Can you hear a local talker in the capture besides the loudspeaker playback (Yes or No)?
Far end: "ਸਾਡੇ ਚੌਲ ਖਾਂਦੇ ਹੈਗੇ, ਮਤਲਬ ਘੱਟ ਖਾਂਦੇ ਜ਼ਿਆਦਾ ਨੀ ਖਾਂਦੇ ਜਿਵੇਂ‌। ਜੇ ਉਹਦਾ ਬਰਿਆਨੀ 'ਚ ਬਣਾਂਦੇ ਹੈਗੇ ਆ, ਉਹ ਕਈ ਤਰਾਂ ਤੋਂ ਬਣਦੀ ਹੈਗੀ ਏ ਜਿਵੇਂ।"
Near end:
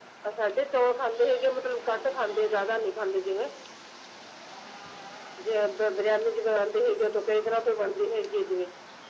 No